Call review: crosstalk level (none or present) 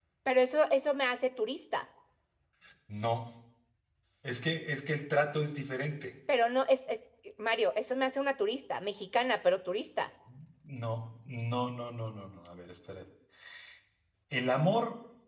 none